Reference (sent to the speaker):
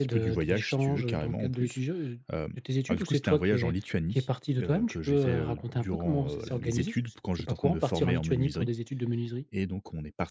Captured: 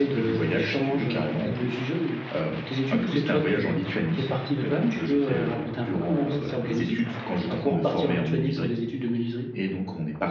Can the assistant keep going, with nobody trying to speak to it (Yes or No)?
Yes